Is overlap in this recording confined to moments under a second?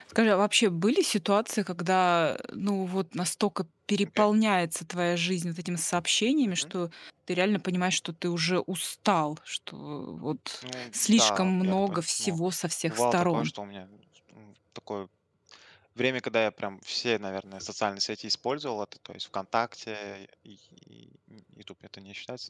No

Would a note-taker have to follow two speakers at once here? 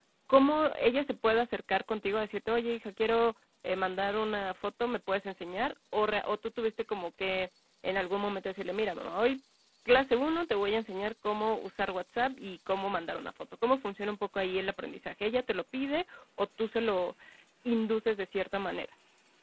No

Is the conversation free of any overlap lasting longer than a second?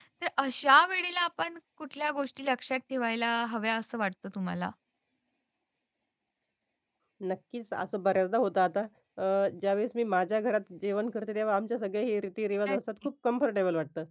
Yes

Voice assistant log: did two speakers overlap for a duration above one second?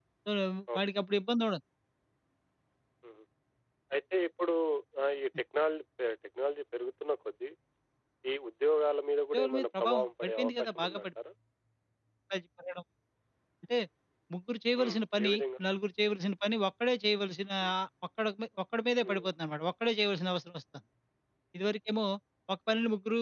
Yes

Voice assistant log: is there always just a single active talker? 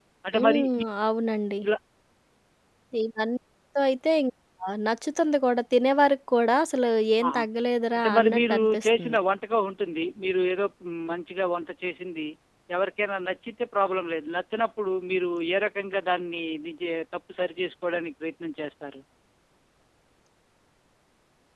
No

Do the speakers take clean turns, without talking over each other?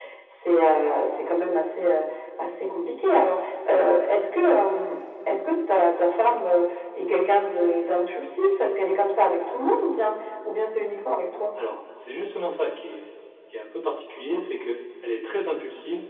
Yes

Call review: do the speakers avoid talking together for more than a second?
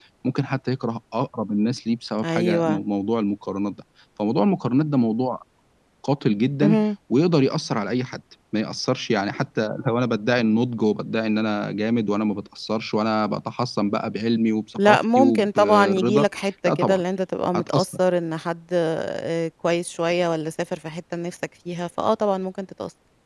No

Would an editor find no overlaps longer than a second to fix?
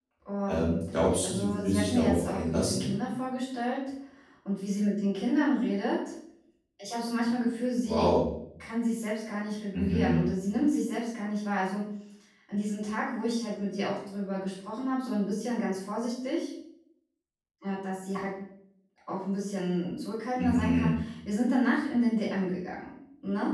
No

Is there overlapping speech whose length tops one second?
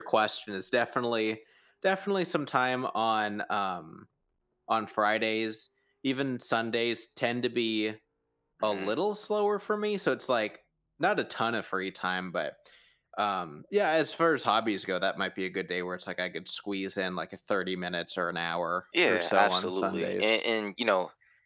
Yes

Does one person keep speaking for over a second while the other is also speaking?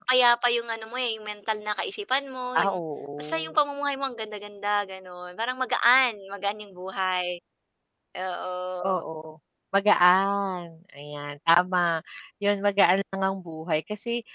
No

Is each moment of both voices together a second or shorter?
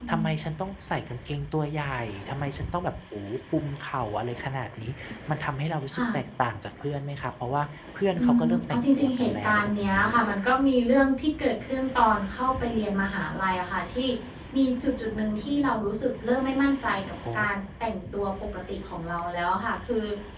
No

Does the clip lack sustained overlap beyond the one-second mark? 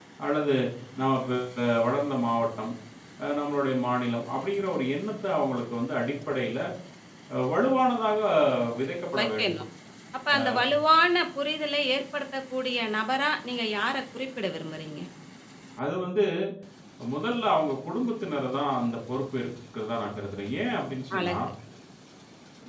Yes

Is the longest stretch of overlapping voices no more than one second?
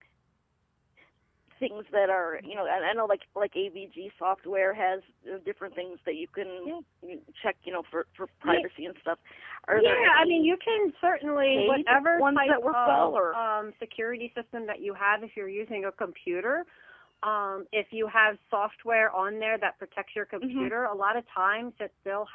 No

